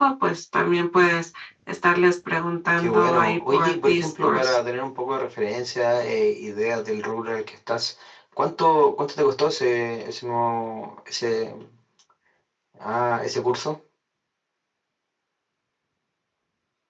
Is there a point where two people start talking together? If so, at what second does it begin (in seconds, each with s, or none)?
2.8 s